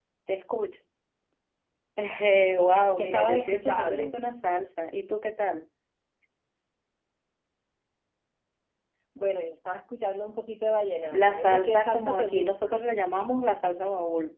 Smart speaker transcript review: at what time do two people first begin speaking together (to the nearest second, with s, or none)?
3 s